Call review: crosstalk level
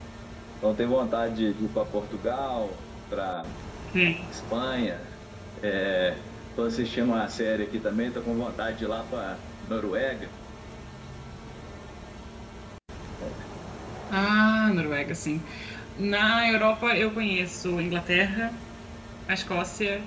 none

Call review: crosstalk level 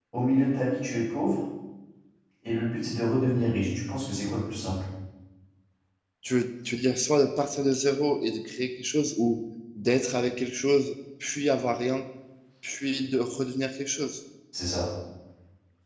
none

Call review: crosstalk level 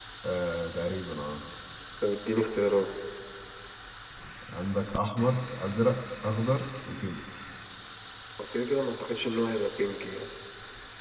none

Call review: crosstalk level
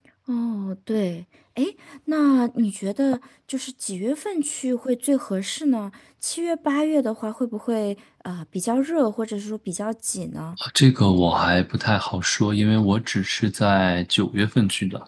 none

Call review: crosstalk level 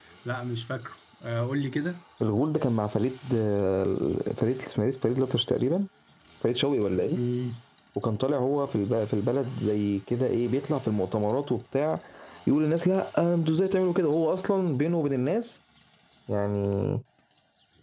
none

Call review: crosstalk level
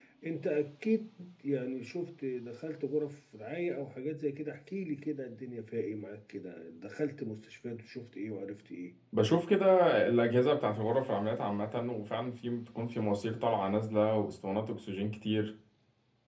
none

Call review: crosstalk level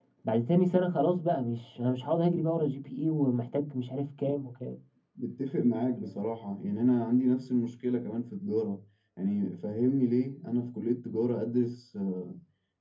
none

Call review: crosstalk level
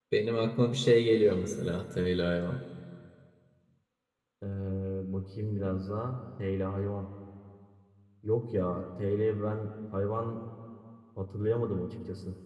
none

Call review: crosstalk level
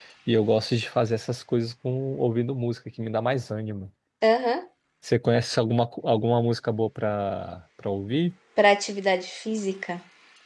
none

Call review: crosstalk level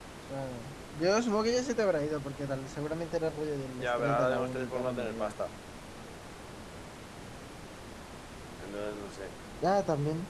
present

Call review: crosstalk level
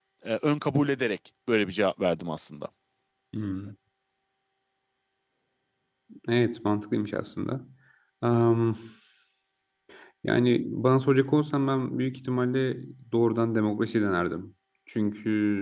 none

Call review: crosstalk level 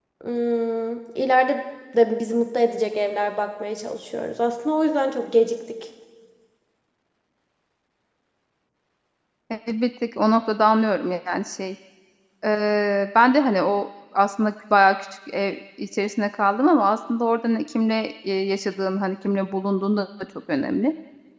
none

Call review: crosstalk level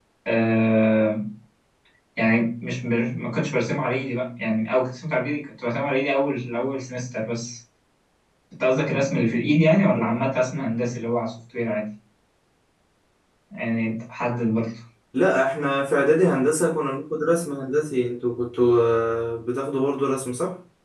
none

